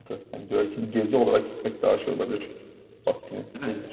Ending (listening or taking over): taking over